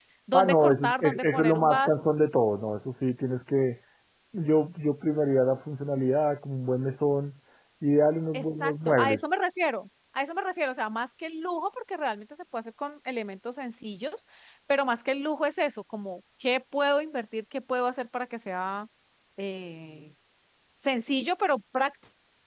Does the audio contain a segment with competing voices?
Yes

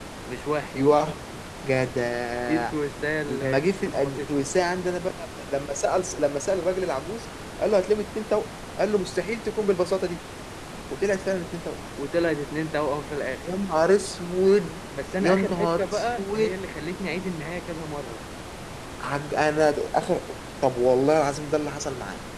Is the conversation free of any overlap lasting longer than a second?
No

